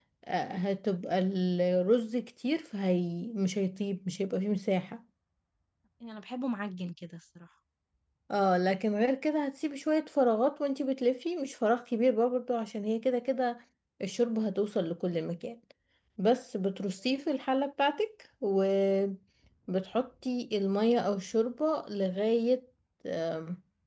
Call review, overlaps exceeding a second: none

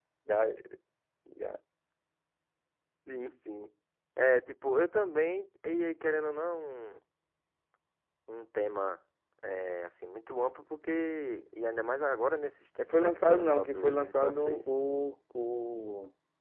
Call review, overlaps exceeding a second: present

